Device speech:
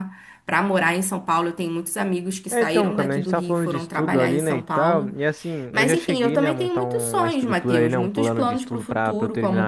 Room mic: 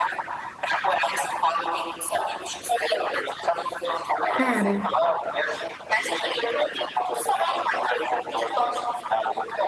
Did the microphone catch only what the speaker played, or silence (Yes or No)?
No